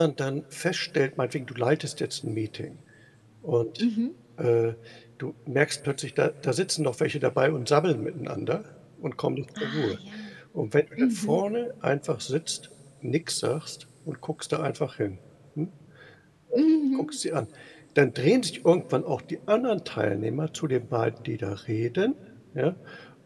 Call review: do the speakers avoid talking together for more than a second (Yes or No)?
Yes